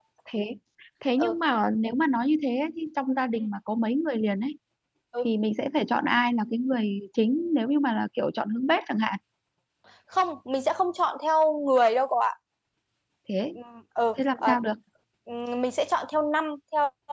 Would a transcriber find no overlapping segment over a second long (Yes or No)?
Yes